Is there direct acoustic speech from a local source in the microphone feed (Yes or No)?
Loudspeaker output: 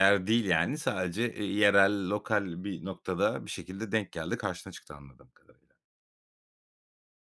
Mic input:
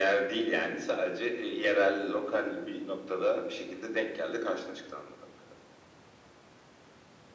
No